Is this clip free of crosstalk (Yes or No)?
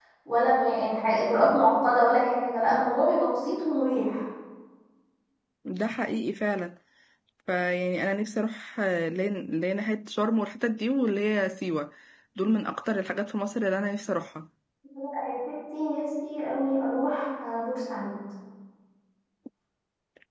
Yes